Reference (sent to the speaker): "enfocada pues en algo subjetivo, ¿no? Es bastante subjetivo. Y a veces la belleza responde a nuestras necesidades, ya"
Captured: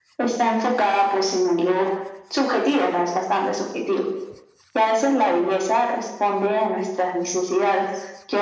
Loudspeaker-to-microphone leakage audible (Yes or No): Yes